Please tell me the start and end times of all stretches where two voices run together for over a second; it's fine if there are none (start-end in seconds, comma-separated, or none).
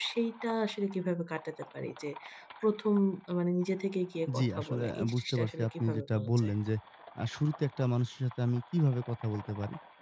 4.4-6.5